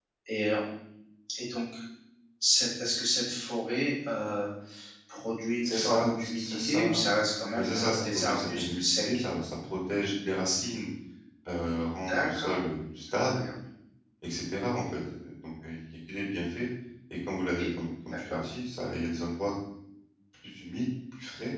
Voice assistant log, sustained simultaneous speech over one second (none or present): present